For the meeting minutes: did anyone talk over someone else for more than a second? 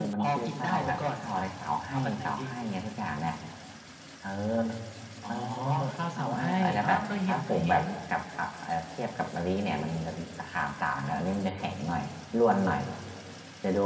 Yes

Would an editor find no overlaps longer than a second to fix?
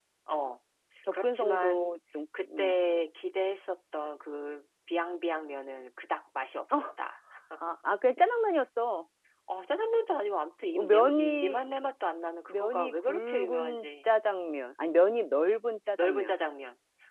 No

